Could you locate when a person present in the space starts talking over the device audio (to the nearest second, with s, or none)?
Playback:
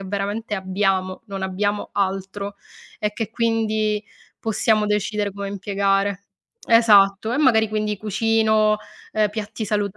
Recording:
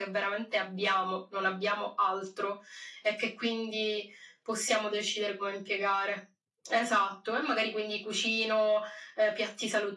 none